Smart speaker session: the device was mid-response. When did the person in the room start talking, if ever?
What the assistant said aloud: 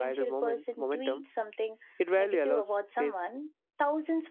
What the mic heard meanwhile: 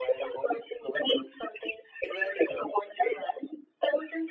none

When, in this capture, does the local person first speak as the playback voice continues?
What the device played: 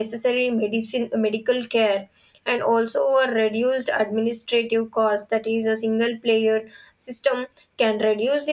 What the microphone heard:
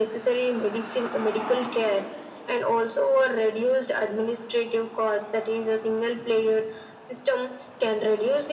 none

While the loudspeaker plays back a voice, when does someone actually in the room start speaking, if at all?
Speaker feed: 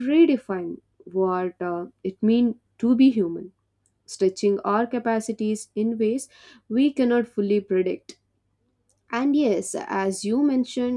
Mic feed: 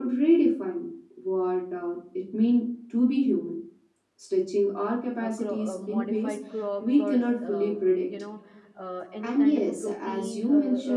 5.2 s

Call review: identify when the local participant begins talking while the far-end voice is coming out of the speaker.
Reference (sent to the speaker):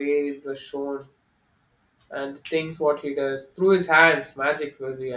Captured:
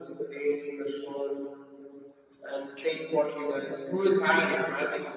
none

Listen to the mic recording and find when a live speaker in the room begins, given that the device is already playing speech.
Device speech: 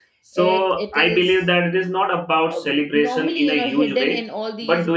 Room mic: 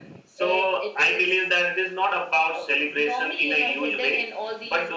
none

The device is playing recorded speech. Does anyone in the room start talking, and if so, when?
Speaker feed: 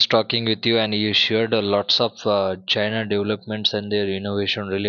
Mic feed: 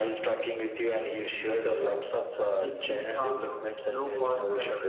2.6 s

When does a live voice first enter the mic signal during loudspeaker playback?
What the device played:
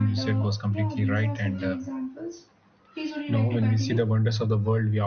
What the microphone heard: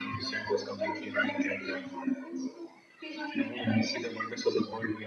none

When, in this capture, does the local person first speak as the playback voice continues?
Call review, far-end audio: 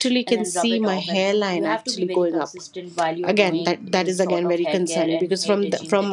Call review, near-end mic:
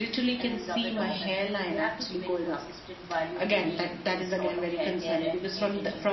none

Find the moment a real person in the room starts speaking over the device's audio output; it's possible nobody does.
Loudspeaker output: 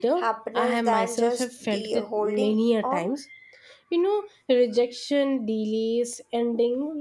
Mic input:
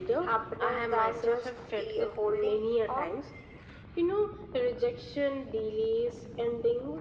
none

